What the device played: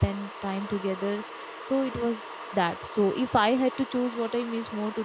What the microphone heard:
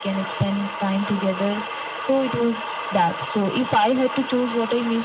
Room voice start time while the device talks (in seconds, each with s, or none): none